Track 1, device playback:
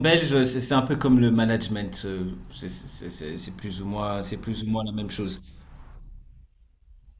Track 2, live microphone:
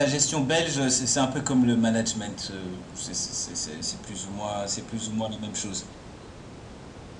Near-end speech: none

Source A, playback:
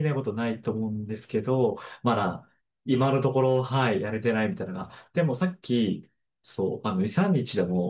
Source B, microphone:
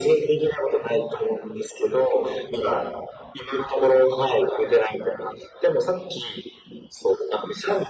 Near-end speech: none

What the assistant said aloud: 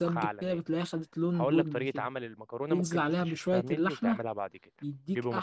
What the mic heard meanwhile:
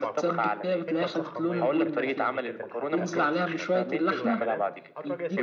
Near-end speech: present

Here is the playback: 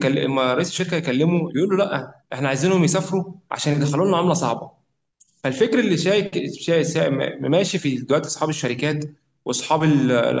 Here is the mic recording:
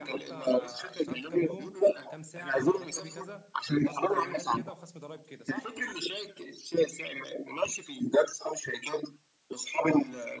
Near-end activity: present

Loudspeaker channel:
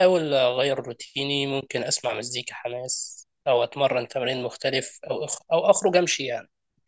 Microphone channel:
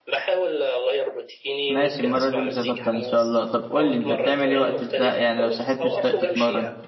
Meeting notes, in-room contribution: present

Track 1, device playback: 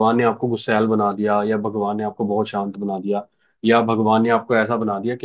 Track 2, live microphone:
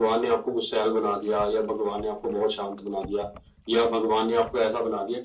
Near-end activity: none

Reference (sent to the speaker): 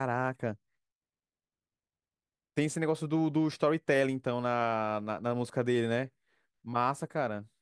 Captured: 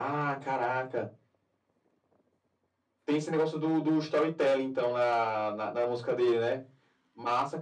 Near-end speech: none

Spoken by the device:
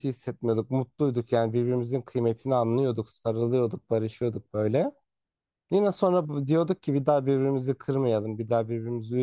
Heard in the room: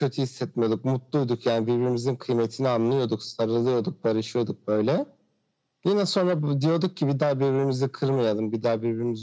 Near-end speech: none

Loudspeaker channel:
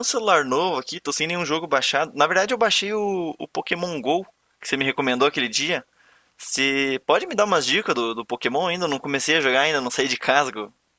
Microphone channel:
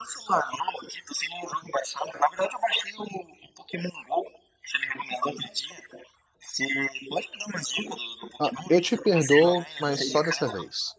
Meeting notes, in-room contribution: present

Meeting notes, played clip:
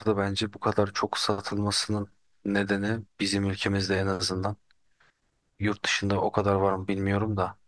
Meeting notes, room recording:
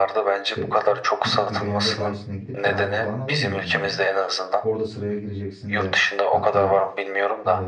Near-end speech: present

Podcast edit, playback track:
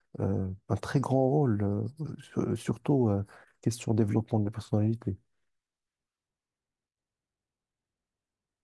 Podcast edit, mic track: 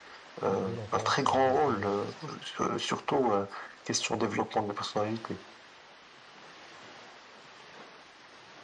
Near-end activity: present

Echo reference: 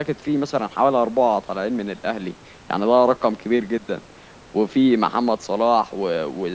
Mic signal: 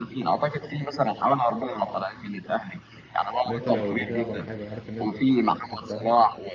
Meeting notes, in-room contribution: present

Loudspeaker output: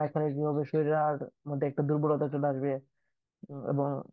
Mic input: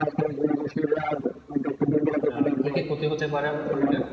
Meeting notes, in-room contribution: present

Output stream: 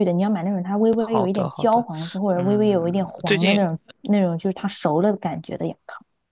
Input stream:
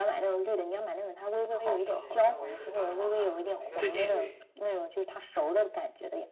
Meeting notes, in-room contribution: present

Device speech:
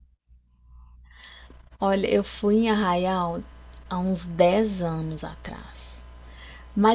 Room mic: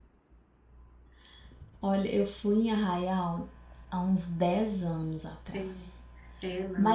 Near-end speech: present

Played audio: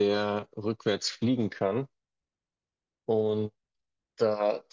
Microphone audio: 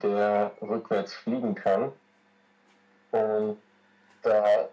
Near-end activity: none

